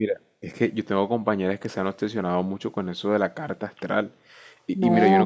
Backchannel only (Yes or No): Yes